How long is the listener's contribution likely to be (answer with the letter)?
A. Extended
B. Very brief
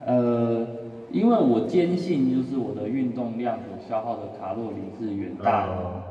B